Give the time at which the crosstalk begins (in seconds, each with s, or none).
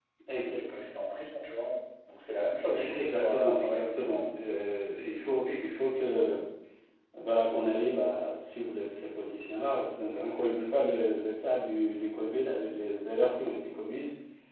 2.7 s